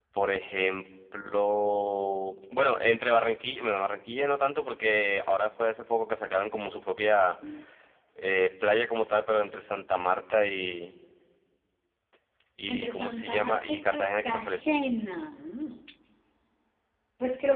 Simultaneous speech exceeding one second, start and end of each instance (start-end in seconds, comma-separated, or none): 12.7-14.8